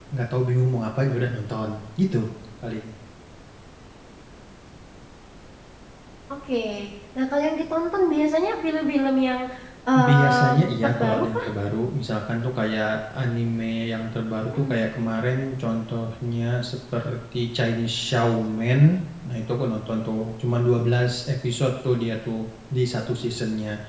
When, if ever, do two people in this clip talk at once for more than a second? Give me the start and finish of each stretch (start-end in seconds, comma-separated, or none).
10.0-11.5